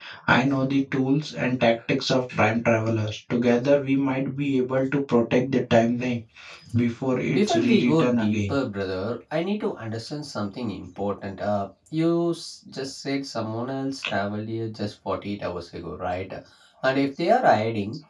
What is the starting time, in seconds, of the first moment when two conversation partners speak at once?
7.3 s

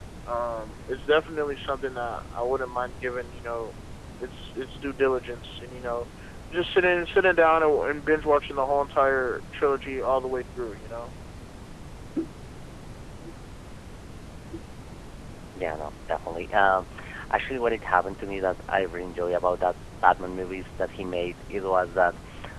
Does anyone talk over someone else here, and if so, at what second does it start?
none

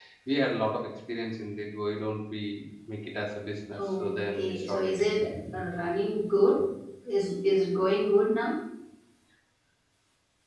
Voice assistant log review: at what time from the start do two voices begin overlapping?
3.7 s

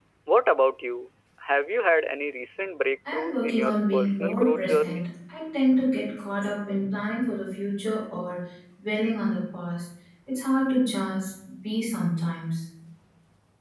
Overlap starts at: 3.0 s

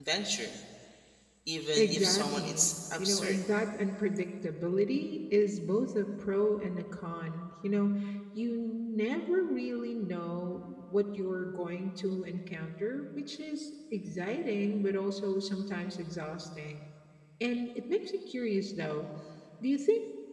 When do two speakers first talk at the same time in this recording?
1.8 s

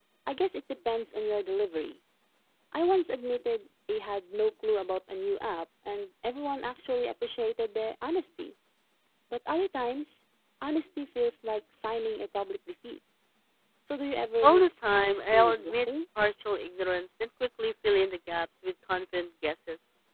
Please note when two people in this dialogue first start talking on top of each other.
14.4 s

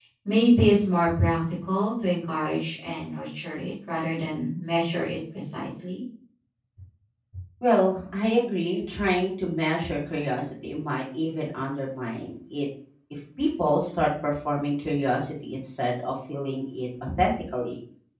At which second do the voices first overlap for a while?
none

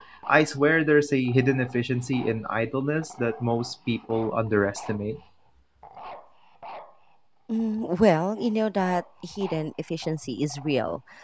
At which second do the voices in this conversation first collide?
none

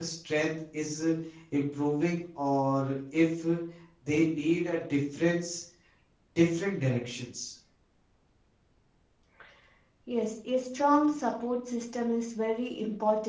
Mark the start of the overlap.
none

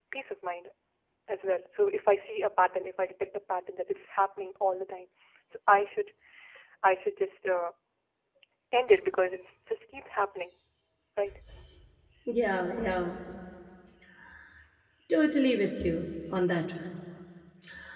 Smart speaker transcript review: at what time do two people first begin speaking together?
none

